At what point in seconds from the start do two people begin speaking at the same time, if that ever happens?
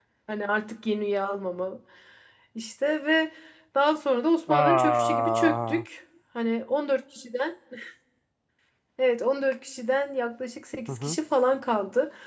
4.5 s

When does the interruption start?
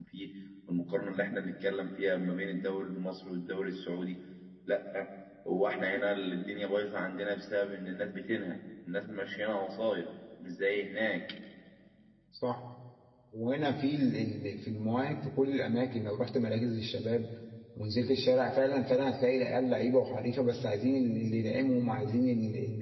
none

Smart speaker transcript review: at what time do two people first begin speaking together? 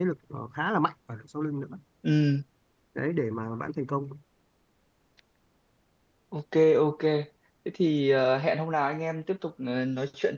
none

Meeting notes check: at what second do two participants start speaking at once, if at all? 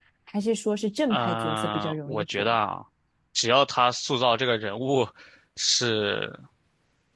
1.1 s

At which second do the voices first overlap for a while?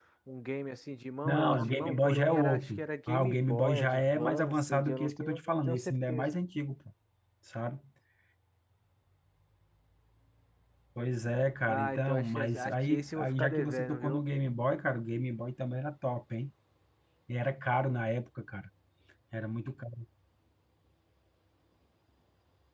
1.2 s

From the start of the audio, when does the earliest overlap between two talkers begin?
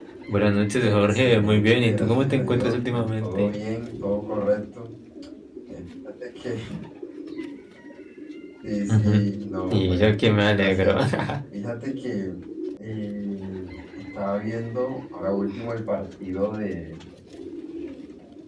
0.8 s

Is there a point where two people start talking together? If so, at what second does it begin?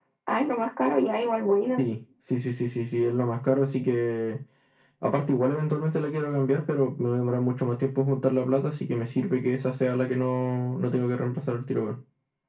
none

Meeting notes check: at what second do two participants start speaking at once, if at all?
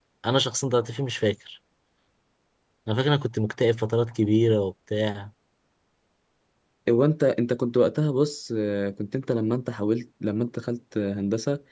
none

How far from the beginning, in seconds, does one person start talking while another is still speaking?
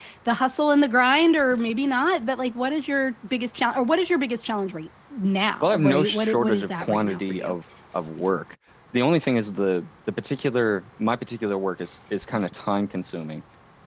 5.6 s

